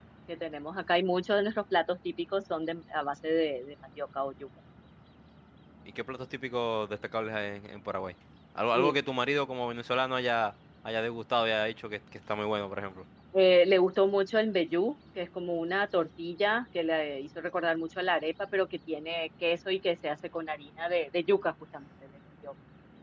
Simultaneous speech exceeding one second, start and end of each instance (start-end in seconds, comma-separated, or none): none